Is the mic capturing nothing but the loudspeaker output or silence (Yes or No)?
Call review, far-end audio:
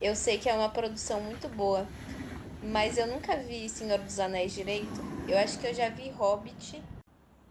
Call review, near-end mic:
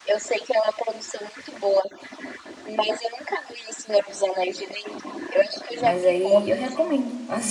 No